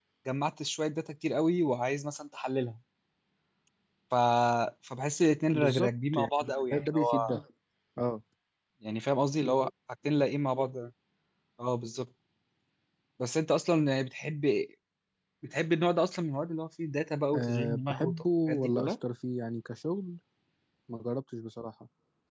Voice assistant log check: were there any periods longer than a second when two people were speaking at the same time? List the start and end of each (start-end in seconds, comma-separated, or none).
5.5-7.4, 17.3-18.9